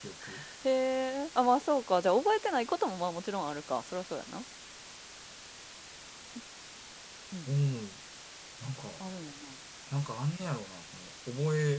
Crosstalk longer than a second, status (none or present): none